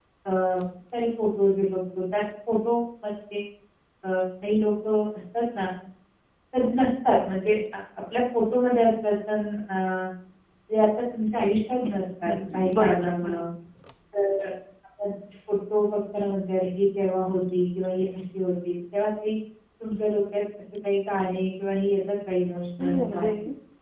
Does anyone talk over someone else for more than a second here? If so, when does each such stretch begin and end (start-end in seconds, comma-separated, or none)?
11.9-13.4